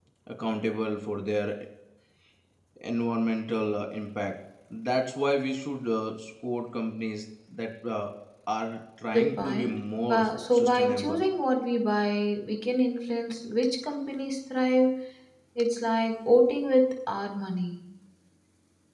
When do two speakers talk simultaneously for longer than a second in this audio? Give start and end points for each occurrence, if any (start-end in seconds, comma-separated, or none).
9.1-11.2